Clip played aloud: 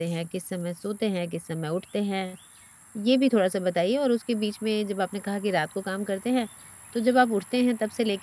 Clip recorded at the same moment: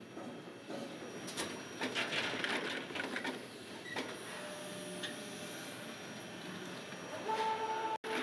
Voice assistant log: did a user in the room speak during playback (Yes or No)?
No